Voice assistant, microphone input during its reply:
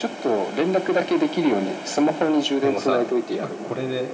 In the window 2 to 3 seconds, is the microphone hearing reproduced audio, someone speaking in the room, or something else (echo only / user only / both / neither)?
both